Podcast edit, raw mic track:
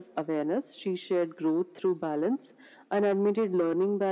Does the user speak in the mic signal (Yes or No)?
No